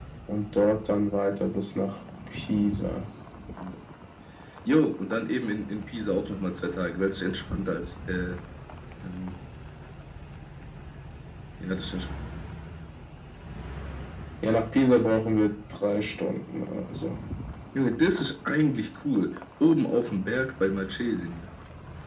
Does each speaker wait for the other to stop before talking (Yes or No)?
Yes